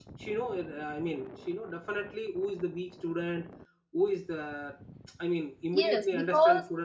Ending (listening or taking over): taking over